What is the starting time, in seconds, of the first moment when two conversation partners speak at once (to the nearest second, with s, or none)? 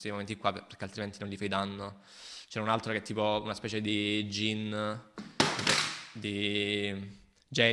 none